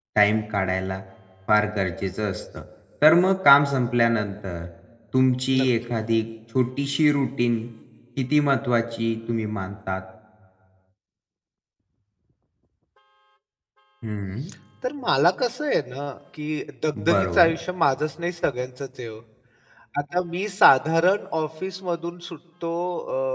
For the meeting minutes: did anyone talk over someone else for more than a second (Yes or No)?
No